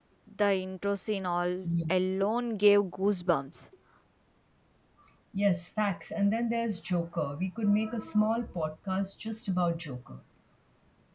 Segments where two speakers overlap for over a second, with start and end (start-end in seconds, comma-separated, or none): none